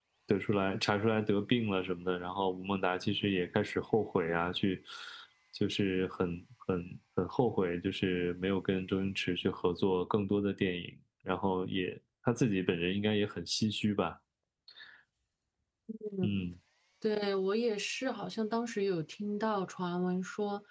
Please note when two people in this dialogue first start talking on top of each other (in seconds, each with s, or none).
none